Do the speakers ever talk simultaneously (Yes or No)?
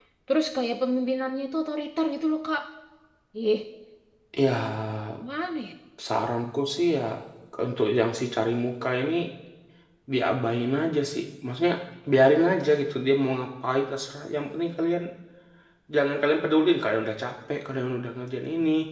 No